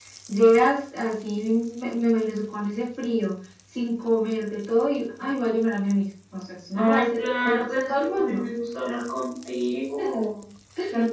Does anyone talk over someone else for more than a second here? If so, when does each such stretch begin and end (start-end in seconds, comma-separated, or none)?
6.7-8.5